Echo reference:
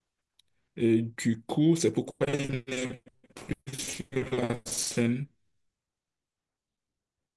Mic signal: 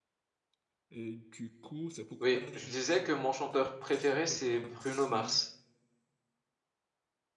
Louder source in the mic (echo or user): user